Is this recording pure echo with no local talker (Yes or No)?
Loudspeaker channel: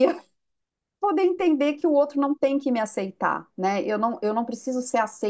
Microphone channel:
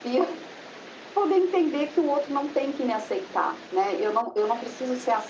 Yes